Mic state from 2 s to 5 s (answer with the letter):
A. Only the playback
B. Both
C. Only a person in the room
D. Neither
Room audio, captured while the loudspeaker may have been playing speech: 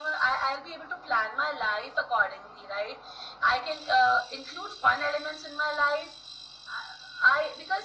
A